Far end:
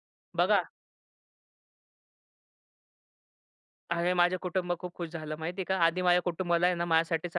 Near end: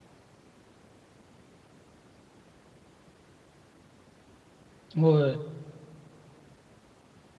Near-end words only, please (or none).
होय.